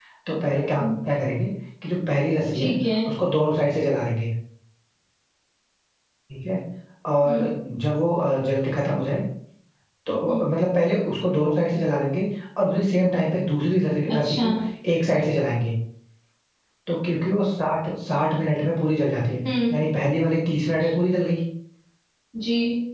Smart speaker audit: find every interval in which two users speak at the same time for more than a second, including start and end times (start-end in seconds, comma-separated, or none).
none